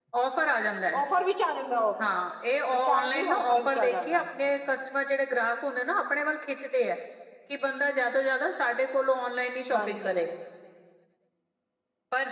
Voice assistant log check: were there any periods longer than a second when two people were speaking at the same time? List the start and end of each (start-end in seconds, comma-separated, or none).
2.7-4.2